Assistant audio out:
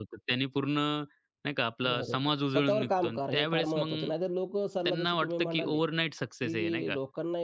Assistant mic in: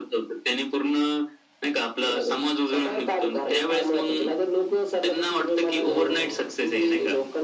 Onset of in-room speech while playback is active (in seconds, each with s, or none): 5.9 s